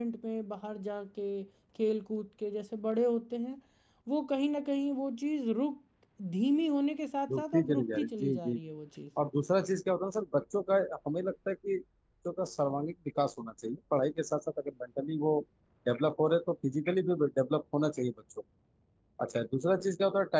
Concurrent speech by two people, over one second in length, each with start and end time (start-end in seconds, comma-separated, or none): 7.4-8.6